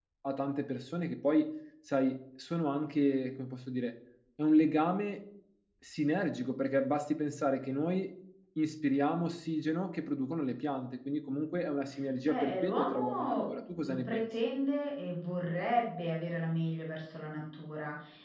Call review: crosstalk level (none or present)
present